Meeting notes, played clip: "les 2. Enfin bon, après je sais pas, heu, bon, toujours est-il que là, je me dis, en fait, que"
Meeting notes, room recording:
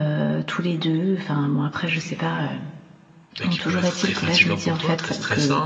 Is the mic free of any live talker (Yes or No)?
No